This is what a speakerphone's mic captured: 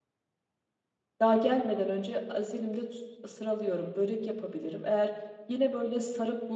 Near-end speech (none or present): present